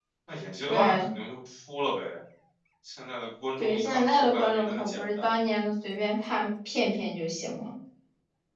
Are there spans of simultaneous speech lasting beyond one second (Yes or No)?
Yes